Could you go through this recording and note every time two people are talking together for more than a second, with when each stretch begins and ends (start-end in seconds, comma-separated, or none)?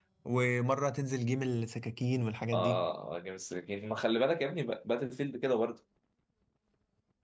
none